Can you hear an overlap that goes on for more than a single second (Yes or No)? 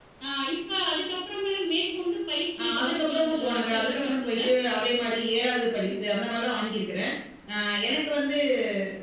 Yes